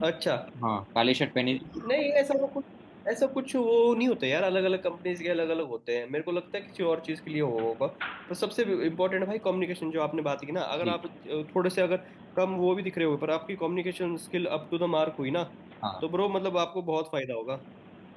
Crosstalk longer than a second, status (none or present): none